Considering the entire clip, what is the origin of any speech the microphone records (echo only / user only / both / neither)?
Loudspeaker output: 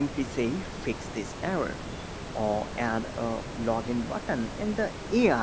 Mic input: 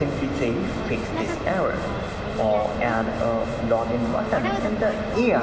both